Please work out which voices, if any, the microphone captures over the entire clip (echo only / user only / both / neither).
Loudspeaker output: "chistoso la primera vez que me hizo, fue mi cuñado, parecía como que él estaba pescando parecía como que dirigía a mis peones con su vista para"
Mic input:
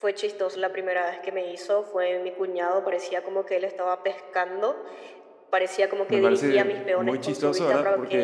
both